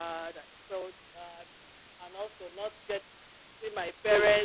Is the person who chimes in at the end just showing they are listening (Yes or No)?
Yes